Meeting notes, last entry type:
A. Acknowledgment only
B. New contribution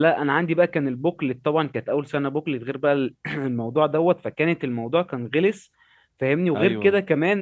A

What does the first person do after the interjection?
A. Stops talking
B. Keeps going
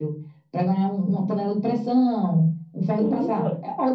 A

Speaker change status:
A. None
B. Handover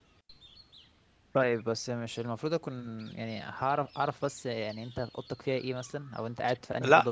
A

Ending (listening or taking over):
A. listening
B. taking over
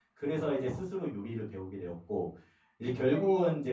A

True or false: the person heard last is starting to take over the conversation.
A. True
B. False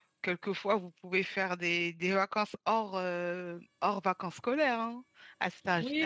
A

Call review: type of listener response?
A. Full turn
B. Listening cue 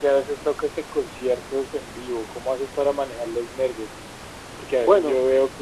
B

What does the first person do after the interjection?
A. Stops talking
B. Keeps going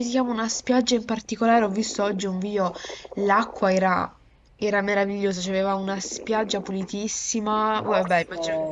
B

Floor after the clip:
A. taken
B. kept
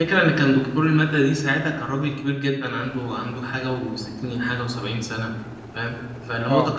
B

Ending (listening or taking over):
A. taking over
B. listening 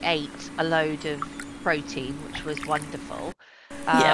B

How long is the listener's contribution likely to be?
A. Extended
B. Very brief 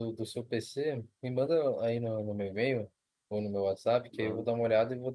B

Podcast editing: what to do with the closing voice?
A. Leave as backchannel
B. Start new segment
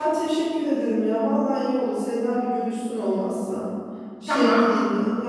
B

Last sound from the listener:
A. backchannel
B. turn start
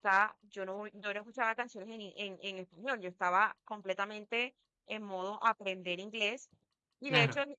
A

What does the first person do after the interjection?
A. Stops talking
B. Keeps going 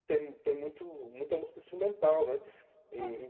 A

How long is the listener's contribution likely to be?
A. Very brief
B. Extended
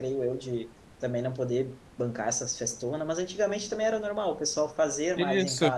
B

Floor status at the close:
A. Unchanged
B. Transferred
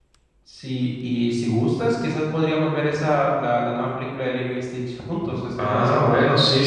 B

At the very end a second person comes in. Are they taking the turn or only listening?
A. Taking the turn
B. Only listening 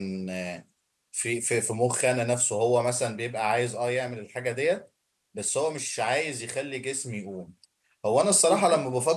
B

